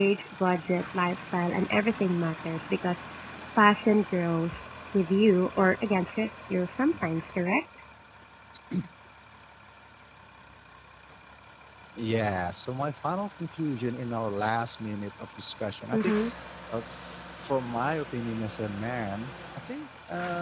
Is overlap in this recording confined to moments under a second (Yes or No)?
Yes